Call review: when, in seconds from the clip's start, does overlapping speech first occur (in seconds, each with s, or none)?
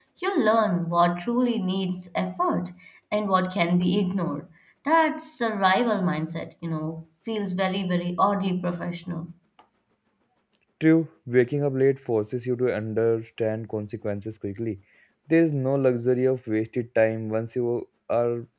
none